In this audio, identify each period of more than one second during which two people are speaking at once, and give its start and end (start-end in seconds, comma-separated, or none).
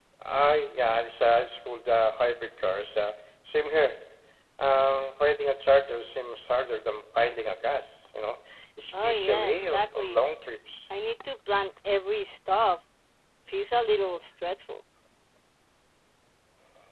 8.9-10.2